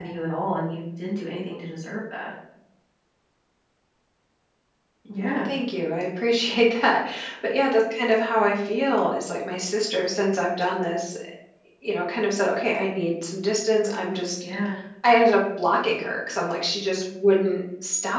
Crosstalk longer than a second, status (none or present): none